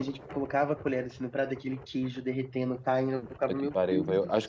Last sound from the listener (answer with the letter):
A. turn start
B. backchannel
A